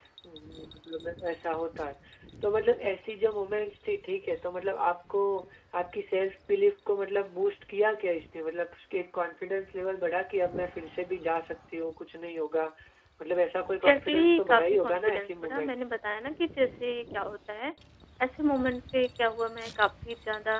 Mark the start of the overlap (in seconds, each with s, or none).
13.8 s